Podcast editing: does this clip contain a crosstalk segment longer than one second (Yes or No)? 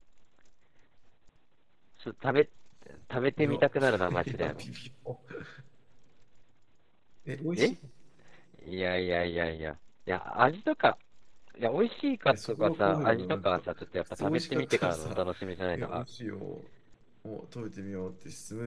Yes